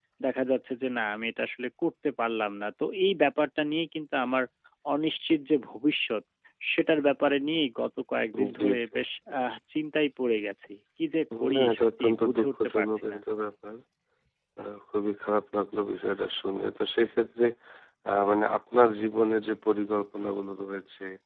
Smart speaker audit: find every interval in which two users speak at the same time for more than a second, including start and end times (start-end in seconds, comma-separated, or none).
11.6-13.2